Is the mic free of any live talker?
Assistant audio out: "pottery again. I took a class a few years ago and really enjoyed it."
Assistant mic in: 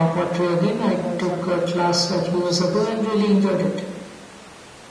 No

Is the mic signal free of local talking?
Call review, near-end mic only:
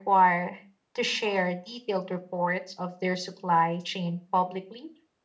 Yes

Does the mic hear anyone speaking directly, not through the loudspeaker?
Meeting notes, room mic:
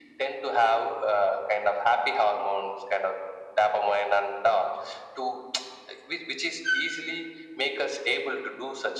No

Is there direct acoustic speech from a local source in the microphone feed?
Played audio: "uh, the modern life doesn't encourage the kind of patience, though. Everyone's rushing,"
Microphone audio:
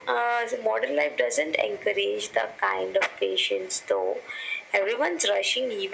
No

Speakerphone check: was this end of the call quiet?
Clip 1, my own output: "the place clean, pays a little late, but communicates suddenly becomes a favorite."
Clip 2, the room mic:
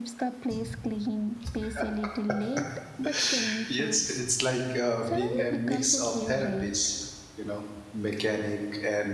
No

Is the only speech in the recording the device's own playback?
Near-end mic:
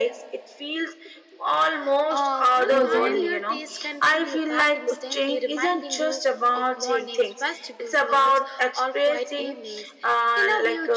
No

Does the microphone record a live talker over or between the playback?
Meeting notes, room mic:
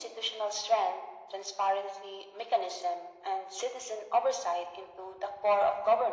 No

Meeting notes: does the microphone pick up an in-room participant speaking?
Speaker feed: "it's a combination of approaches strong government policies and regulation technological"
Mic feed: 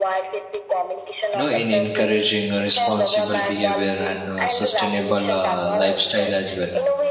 Yes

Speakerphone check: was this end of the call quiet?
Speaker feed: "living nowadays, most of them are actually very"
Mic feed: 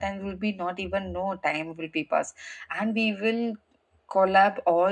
No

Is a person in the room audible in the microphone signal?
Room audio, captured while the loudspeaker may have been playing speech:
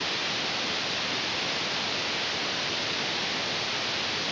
No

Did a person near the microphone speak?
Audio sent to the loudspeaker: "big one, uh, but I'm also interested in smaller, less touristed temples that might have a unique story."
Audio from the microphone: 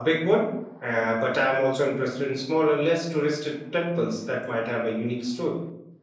No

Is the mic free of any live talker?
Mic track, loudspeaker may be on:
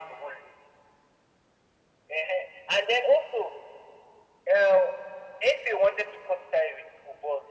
Yes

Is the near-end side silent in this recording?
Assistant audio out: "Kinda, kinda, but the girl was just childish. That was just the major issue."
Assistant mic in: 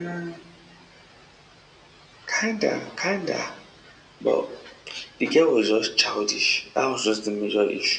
Yes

